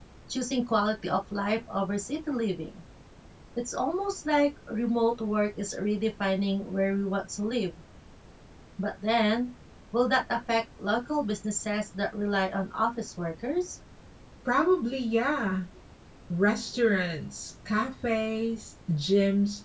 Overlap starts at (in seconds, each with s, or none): none